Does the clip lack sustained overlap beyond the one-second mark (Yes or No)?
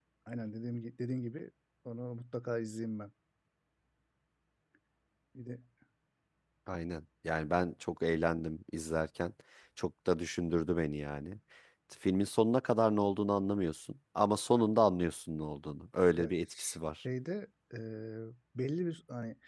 Yes